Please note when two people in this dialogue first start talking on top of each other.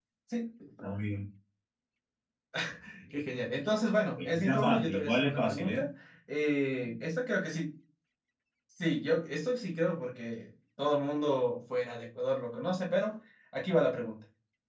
4 s

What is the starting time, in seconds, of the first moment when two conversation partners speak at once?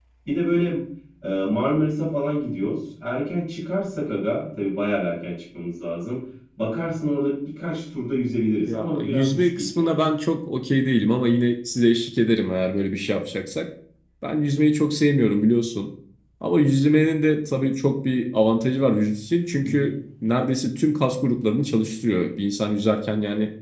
9 s

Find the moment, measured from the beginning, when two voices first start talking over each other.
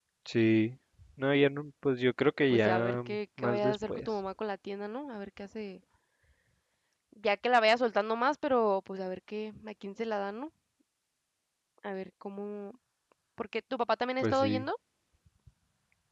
3 s

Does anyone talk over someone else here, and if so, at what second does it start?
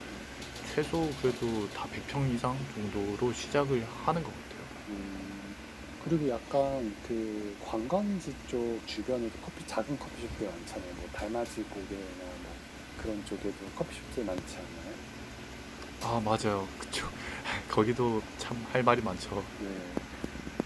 none

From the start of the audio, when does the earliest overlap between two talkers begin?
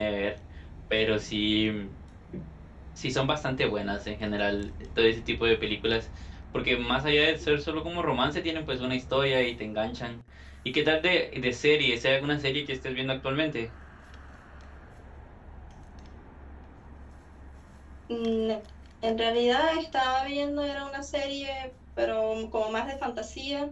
none

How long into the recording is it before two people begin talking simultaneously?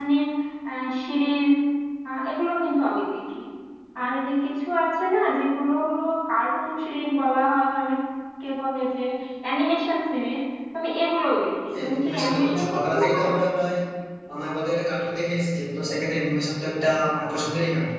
12 s

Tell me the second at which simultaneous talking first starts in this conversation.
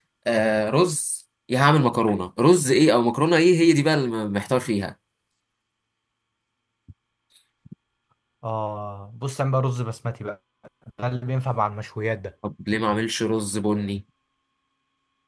none

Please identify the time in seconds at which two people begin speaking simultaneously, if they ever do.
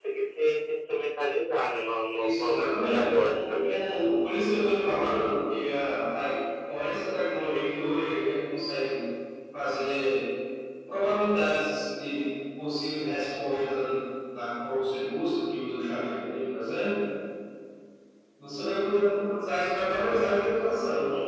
2 s

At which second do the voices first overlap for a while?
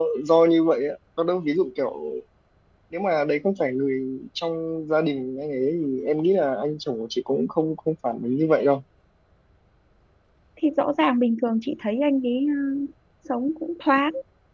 none

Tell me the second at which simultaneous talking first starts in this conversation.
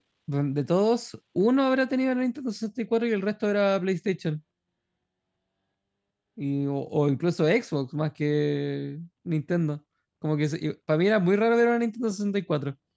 none

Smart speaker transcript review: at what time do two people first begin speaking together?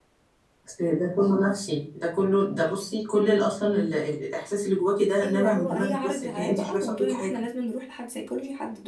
5 s

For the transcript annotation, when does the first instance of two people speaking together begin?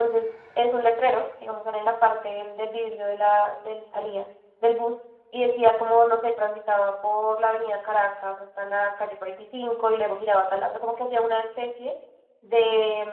none

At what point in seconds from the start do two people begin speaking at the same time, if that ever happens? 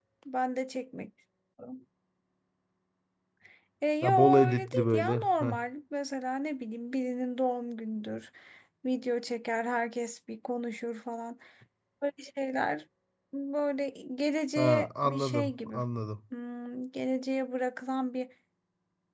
4 s

